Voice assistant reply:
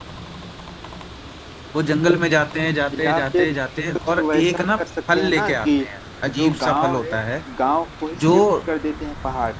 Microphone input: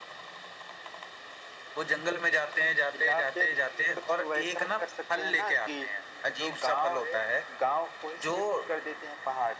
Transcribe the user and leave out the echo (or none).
none